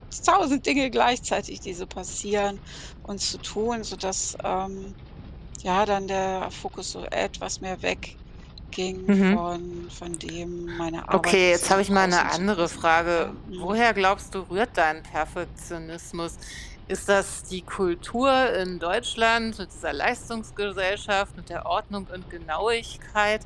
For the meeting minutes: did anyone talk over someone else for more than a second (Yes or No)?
Yes